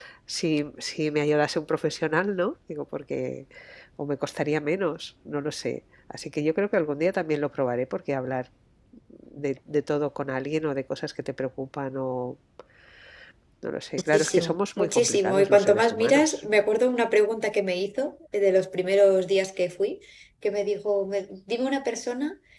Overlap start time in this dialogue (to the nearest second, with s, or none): 14 s